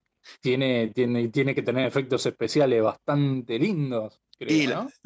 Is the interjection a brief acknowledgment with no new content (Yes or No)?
No